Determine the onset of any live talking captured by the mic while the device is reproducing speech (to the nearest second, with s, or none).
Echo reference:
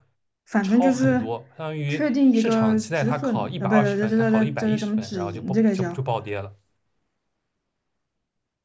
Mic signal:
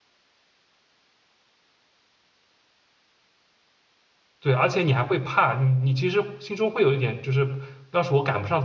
4 s